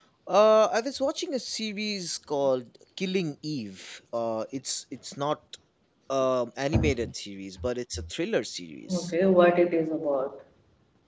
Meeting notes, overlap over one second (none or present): none